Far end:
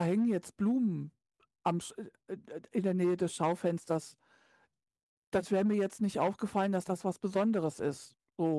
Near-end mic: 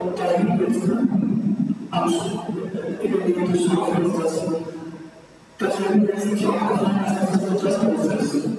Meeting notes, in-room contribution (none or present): present